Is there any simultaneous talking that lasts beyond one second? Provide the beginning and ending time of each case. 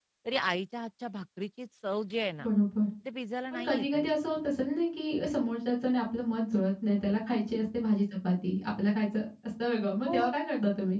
none

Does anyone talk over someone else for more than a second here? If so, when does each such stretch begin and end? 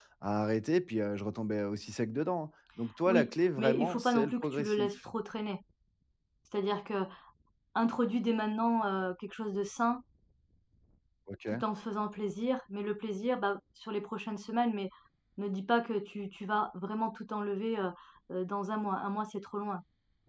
3.1-5.0

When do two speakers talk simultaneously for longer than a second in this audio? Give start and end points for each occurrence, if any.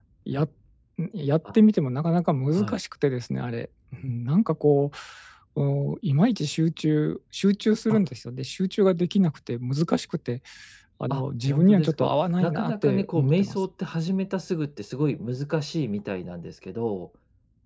11.1-13.6

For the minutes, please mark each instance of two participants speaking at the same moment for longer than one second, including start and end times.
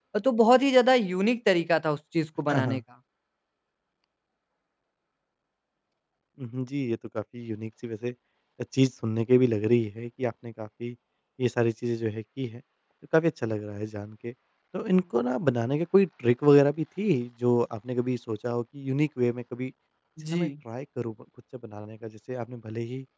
none

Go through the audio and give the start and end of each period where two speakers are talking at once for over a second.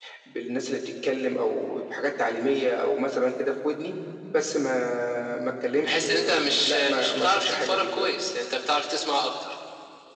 5.8-8.1

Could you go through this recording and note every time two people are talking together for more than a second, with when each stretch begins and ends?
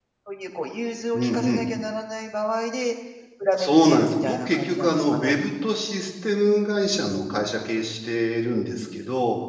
3.6-5.3

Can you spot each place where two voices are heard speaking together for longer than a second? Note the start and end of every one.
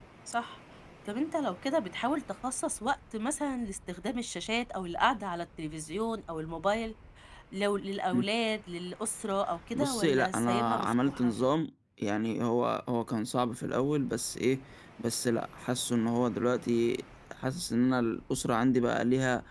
9.8-11.3

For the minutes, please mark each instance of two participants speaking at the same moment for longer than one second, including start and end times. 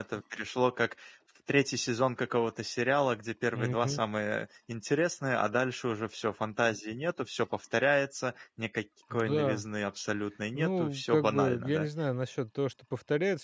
10.6-11.9

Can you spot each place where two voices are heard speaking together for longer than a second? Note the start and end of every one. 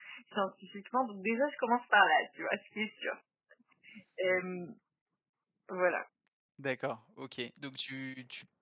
none

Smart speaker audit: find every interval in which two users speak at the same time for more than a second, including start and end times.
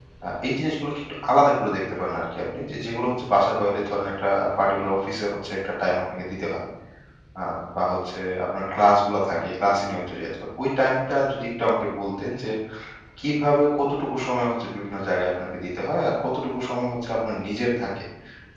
none

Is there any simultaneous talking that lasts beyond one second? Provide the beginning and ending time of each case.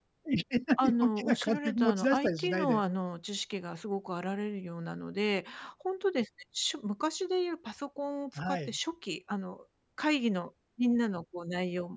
0.8-2.8

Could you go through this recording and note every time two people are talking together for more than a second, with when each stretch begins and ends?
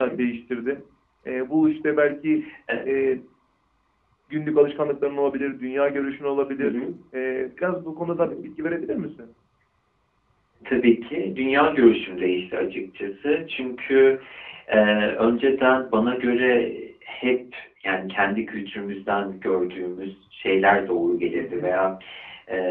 none

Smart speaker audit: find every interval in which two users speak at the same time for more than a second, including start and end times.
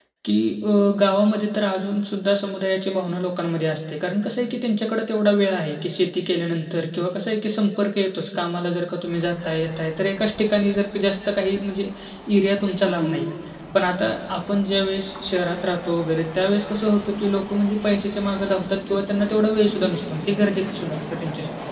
none

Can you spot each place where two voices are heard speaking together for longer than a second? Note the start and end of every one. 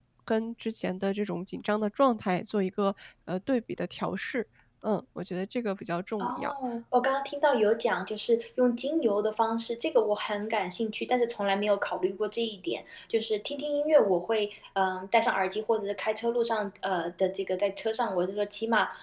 none

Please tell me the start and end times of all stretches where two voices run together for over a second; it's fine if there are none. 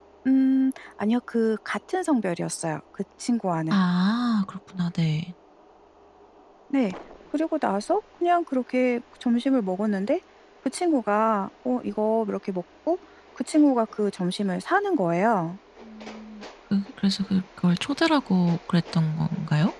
none

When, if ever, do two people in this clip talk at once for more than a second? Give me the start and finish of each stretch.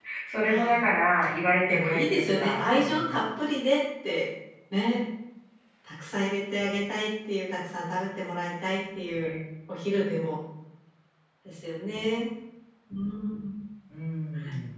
1.7-3.2

